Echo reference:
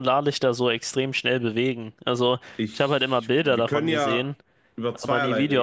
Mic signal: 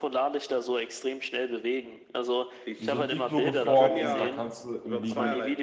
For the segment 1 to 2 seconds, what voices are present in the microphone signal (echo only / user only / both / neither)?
echo only